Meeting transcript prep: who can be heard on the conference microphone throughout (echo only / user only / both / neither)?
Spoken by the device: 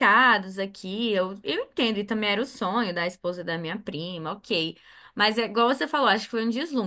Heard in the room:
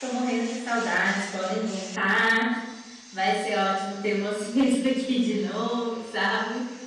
user only